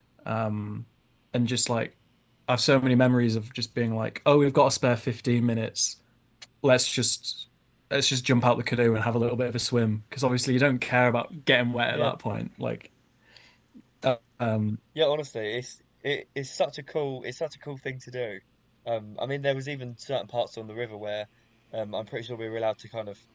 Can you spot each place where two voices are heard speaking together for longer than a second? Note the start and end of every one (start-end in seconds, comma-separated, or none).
none